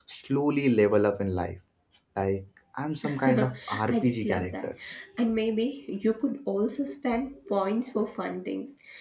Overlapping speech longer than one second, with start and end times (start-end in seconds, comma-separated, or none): 3.0-4.7